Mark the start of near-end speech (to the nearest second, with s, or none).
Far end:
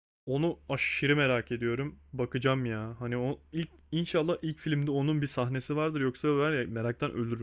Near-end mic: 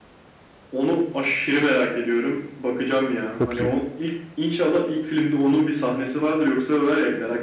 3 s